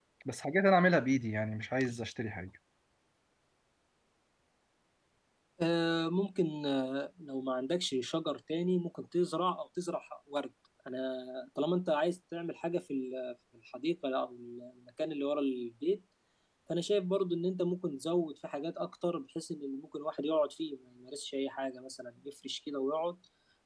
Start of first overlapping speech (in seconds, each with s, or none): none